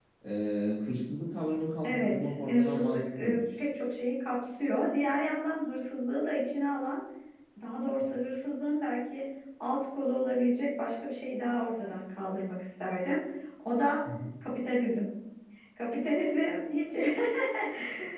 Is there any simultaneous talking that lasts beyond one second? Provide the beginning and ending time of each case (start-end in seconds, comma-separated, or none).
1.8-3.4